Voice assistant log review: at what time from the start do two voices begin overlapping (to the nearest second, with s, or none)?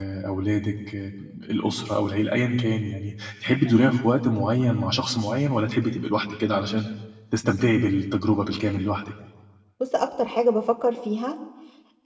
none